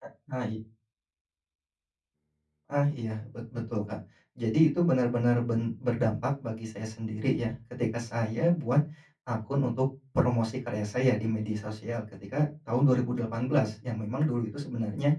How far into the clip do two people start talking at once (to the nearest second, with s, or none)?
none